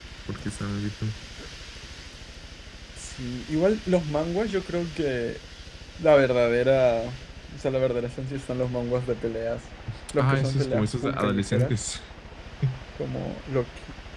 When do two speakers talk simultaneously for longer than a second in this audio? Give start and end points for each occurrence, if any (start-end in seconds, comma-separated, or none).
10.2-11.7